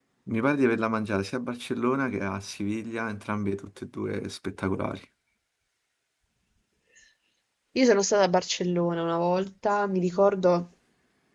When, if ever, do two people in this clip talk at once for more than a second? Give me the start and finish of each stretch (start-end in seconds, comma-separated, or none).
none